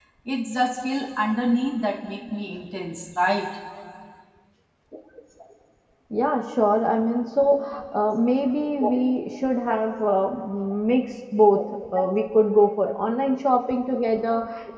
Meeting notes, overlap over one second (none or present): none